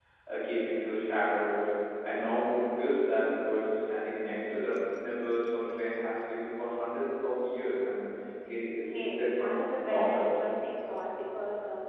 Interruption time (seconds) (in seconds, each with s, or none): 8.9 s